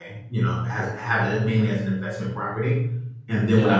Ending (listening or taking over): listening